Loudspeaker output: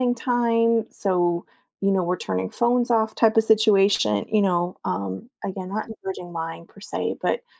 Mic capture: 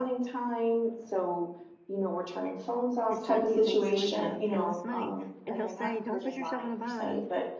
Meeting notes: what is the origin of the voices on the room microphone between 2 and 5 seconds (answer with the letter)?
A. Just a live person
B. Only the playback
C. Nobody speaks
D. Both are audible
D